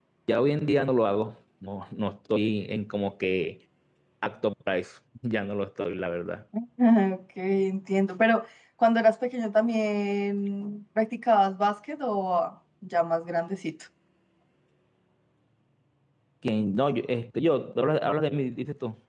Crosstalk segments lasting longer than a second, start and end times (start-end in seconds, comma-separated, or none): none